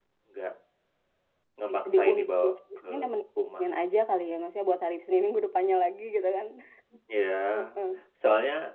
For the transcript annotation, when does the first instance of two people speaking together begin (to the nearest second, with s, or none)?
2 s